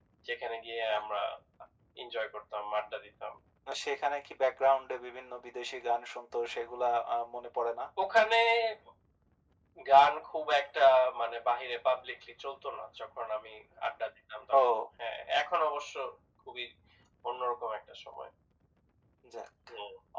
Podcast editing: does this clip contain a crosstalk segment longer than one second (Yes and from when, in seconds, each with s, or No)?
No